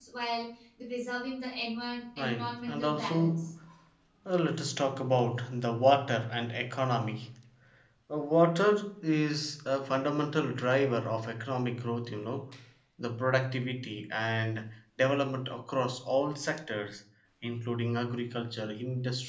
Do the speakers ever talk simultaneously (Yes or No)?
Yes